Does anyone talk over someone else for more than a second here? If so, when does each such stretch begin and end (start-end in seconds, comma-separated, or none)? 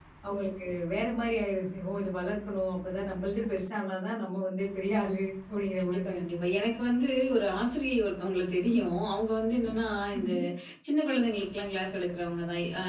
none